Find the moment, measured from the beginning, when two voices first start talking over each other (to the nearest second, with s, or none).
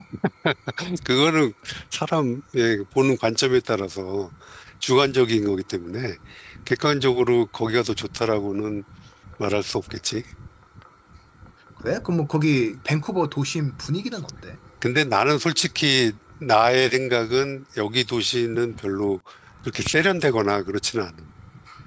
none